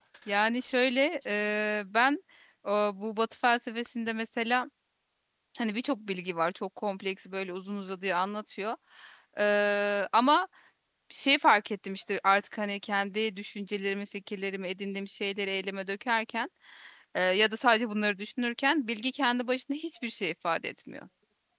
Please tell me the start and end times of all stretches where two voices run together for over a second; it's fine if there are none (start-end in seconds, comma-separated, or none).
none